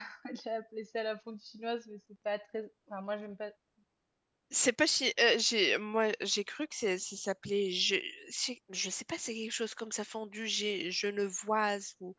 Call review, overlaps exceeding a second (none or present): none